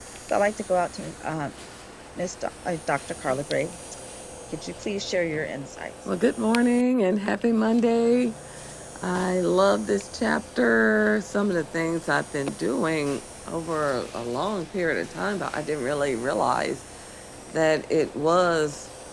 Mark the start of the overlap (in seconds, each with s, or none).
none